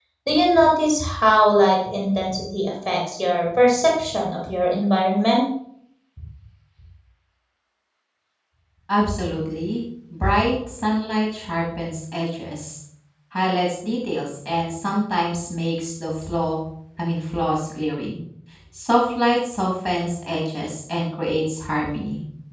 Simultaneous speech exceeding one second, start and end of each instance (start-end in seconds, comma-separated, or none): none